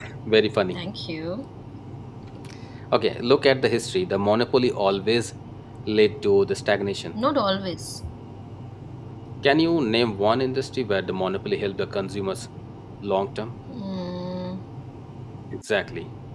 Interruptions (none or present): none